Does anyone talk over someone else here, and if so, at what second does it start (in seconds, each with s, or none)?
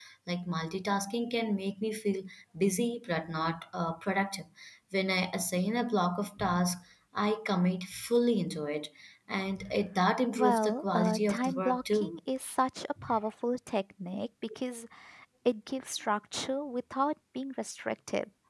10.3 s